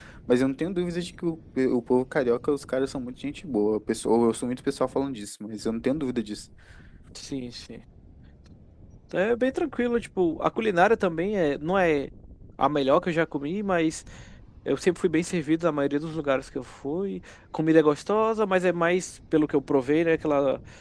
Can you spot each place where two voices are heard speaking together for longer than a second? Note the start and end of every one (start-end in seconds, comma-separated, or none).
none